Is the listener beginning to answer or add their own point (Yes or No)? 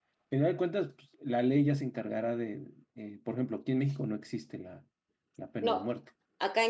Yes